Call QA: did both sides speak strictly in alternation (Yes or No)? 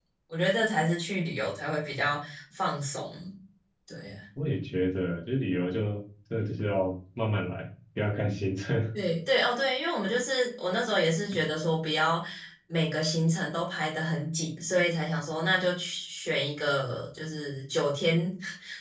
Yes